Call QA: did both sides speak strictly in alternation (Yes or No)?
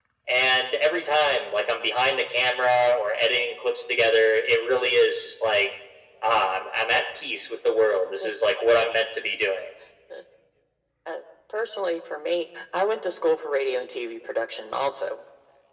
Yes